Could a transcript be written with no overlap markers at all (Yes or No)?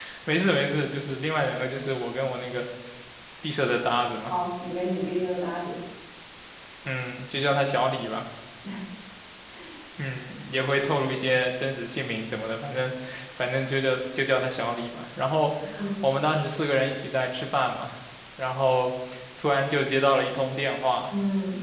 Yes